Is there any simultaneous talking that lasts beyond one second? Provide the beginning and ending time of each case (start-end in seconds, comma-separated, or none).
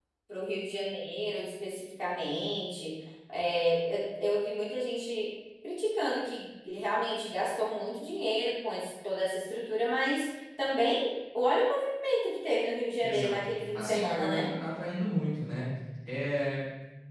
13.0-14.5